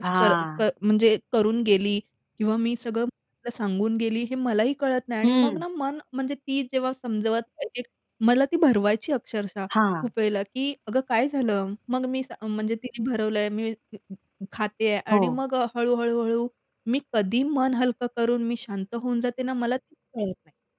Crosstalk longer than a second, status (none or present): none